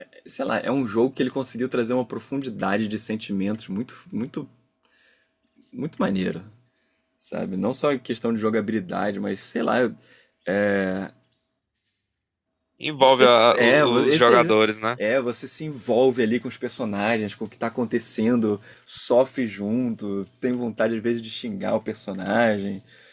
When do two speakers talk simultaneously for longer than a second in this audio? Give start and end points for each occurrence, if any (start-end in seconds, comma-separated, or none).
13.0-14.6